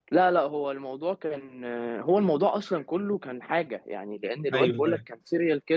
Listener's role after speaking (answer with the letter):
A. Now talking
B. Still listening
B